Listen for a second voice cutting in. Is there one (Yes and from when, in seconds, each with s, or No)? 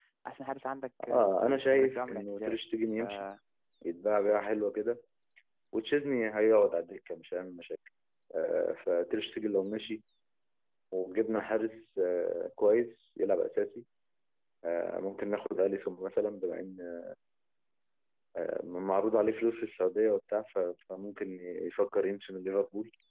Yes, from 1.1 s